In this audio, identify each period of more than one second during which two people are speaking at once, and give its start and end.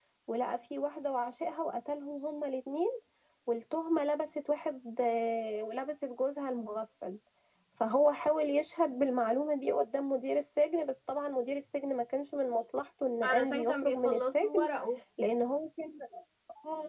13.2-14.7

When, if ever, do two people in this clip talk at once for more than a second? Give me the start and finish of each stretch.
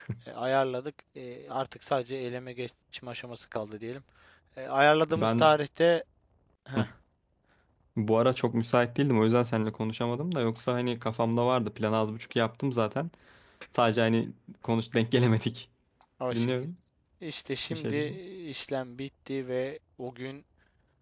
none

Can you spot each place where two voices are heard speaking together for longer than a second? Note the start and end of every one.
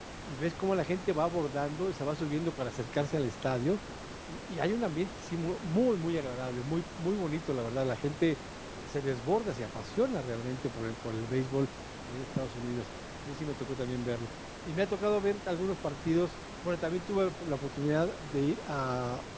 none

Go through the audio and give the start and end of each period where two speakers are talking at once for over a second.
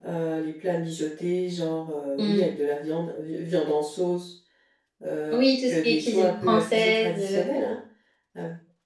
5.3-7.4

